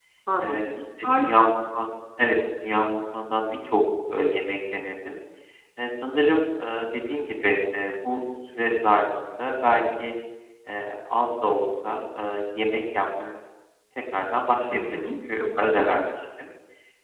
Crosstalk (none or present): present